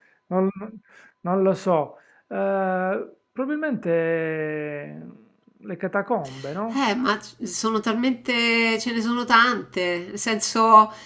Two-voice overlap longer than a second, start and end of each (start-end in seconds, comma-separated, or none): none